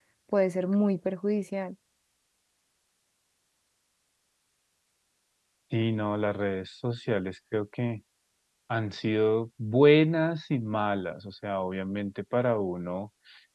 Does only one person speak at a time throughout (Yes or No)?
Yes